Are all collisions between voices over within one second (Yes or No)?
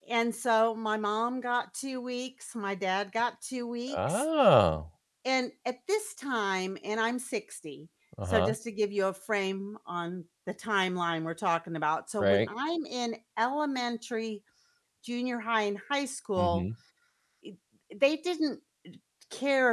Yes